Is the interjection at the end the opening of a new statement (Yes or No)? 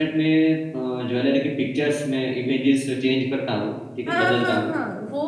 Yes